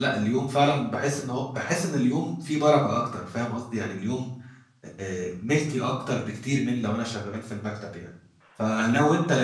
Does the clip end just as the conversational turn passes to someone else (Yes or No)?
No